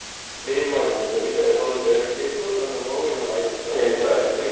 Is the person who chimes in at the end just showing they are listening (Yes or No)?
No